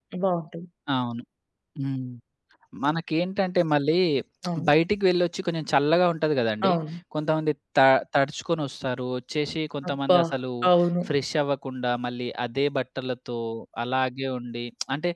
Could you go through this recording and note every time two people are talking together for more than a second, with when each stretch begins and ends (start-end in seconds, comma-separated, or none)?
none